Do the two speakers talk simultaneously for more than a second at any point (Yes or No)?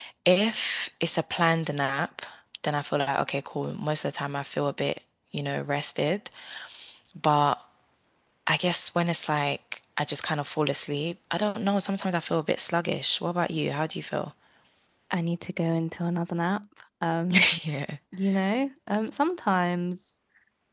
No